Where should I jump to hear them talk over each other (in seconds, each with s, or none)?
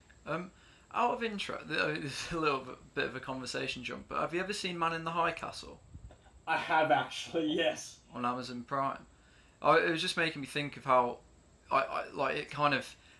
none